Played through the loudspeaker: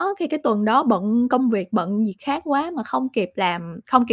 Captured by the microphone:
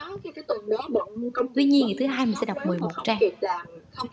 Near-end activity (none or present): present